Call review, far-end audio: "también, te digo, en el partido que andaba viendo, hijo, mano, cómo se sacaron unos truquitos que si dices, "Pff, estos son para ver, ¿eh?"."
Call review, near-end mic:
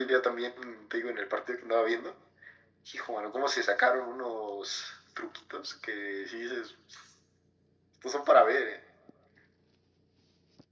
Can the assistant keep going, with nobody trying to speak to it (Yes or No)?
Yes